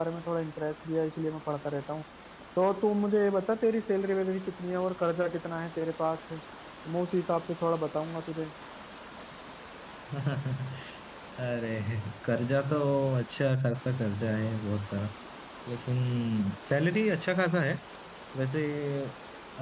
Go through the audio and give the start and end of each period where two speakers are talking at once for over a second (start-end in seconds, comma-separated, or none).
none